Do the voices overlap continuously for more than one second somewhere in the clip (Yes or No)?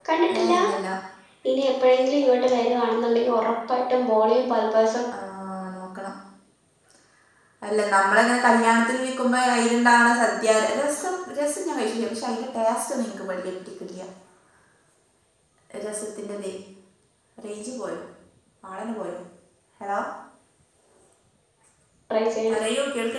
No